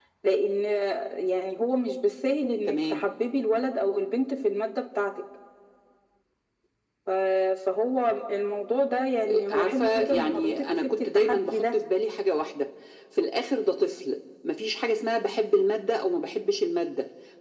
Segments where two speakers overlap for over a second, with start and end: 9.5-11.7

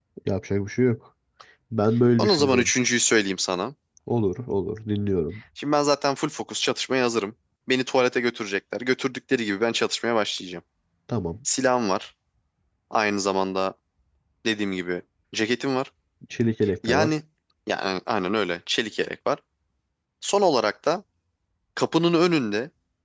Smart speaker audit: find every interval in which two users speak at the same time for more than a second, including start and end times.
none

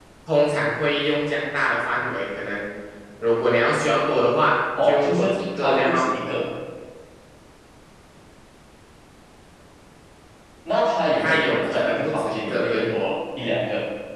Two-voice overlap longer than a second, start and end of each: 4.8-6.1, 11.2-12.9

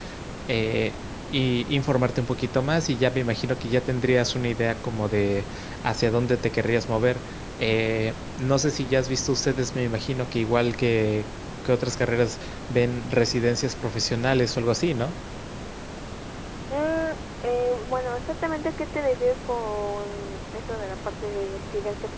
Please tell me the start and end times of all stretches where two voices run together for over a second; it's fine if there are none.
none

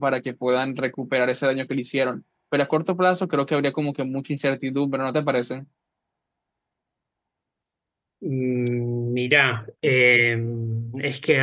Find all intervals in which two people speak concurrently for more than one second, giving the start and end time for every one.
none

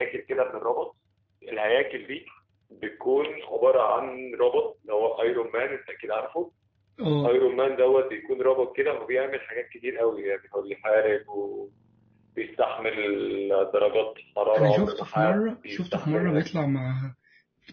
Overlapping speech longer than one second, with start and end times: 14.6-16.4

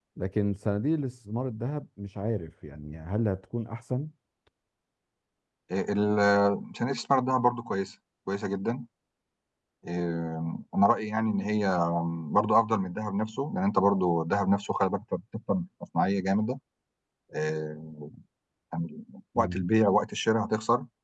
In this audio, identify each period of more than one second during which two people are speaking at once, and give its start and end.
none

